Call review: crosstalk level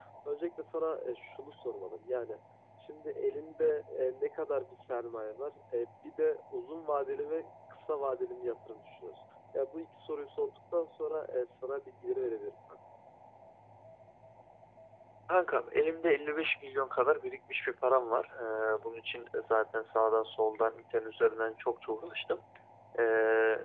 none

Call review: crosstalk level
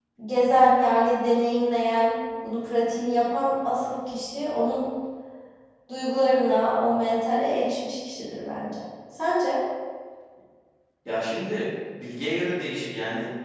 none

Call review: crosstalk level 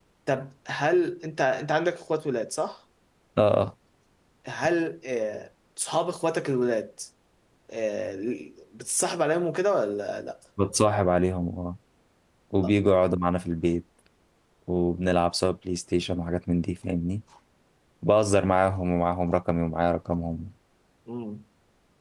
none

